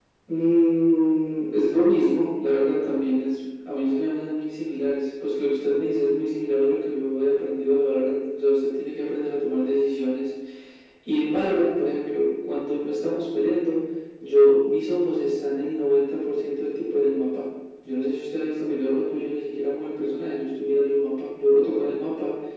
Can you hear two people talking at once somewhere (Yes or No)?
No